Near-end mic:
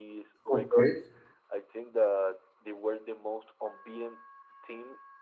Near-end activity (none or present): present